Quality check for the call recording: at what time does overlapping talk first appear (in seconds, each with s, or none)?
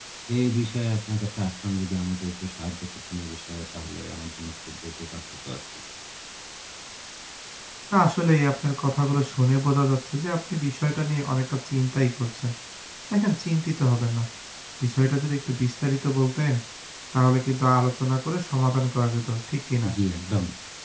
none